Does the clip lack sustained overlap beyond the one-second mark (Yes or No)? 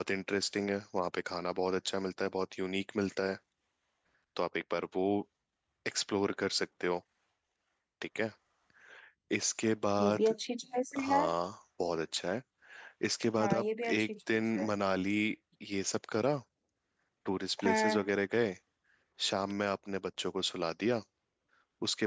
No